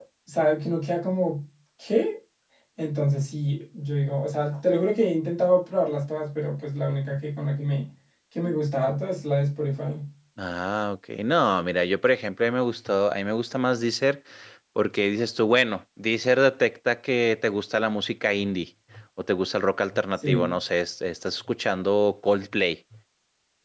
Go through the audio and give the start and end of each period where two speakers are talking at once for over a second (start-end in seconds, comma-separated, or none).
none